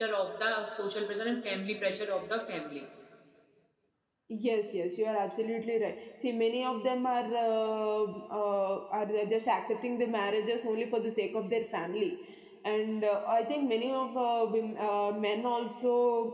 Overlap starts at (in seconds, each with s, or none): none